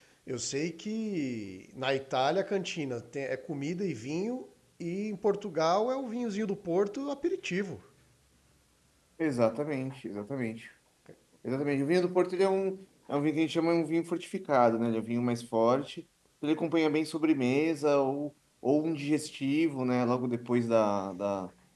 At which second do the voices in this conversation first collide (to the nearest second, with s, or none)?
none